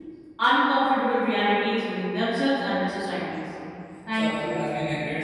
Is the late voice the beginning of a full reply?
Yes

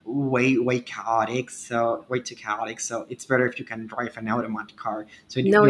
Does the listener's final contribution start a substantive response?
No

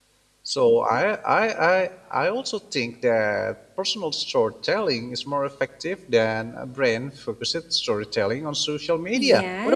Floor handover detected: Yes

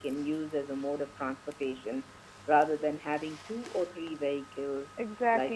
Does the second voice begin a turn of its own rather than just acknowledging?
No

